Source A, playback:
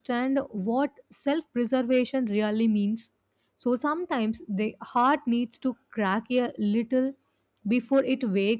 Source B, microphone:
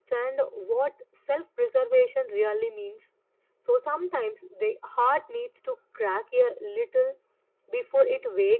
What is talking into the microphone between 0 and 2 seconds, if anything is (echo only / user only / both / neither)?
echo only